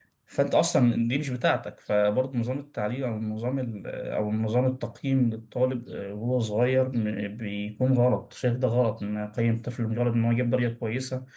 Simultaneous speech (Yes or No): No